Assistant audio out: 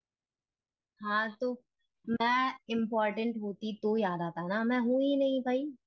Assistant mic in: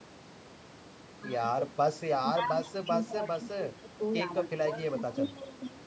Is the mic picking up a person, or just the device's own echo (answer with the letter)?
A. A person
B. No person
A